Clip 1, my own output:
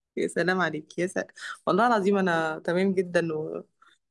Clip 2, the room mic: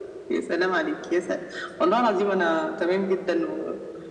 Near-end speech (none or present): none